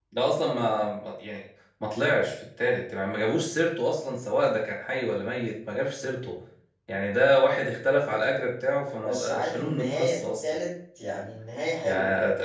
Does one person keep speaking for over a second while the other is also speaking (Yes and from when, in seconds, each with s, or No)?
Yes, from 9.1 s